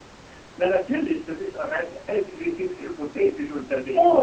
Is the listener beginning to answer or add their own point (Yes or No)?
Yes